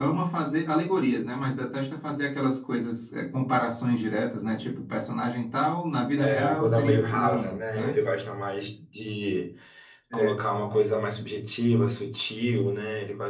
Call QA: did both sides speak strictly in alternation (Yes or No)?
No